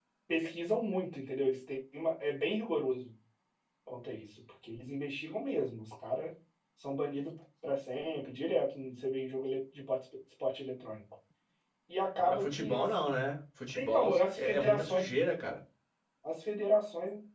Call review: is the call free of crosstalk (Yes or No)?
No